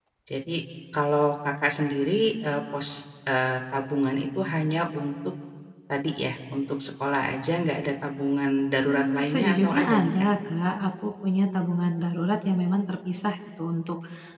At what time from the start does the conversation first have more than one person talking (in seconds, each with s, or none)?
8.9 s